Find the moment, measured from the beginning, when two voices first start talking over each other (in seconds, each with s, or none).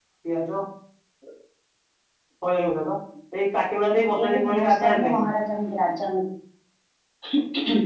3.8 s